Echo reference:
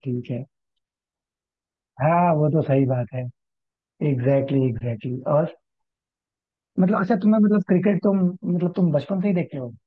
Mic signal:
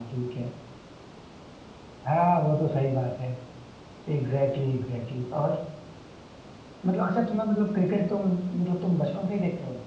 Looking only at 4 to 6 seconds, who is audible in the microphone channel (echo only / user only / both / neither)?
echo only